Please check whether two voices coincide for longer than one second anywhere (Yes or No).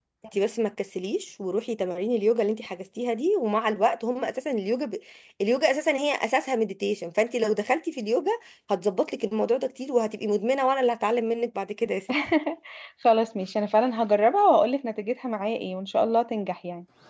No